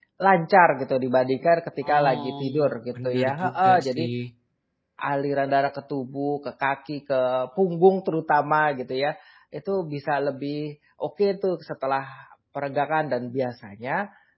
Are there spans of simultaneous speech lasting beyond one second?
Yes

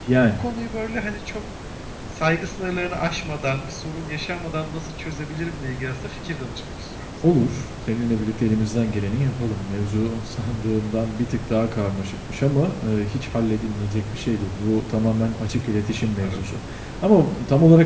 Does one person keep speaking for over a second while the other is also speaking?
No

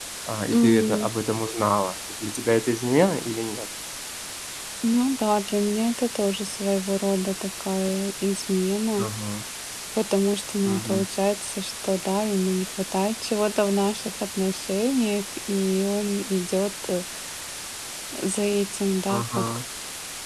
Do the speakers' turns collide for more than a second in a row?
No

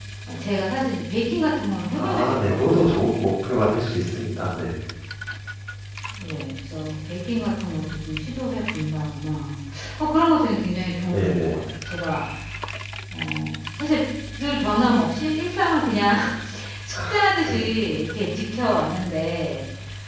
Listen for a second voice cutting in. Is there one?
Yes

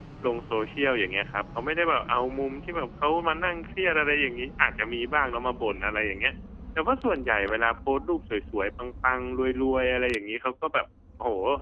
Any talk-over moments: No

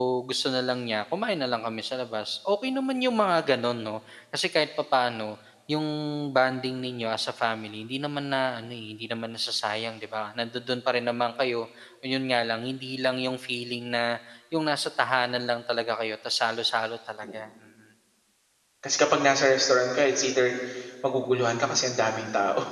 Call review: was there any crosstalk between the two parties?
No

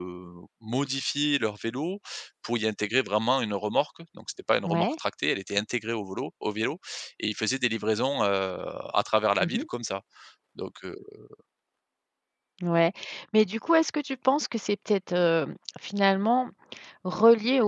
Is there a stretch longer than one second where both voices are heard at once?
No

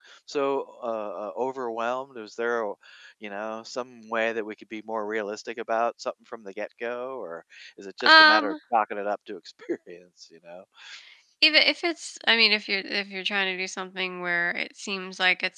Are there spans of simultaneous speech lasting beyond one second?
No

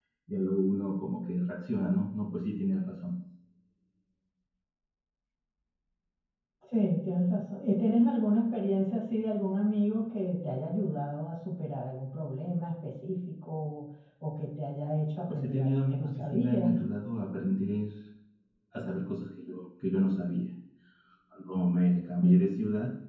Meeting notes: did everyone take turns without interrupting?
No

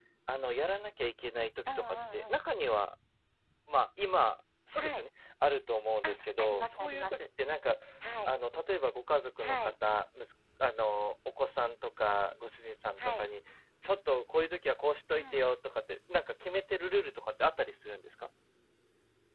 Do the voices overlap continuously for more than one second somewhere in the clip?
Yes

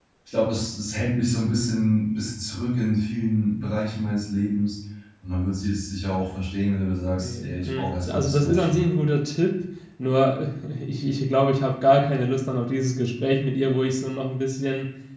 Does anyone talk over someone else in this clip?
Yes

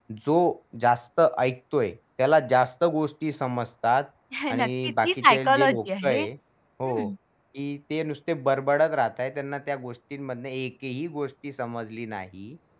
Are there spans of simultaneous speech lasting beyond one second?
Yes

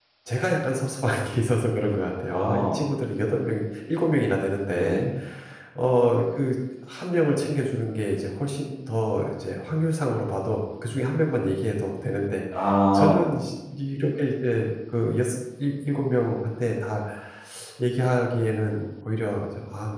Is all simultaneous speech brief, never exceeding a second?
Yes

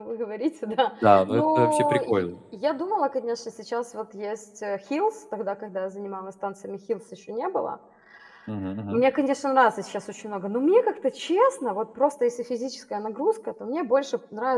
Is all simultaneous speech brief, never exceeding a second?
No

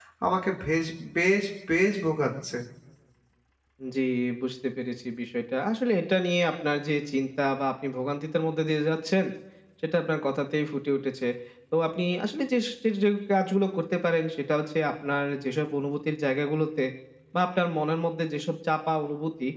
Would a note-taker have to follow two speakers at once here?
No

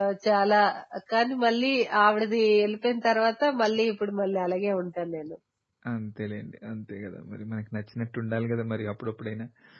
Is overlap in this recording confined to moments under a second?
Yes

